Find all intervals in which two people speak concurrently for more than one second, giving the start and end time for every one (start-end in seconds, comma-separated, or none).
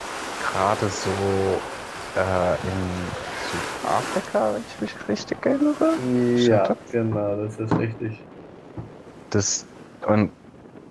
none